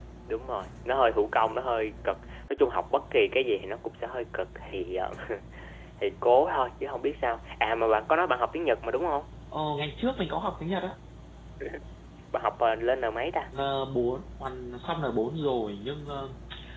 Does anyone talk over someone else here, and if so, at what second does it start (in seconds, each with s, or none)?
none